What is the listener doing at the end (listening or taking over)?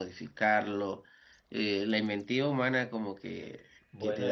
listening